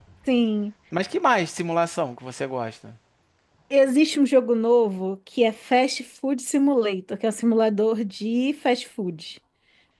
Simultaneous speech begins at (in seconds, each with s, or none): none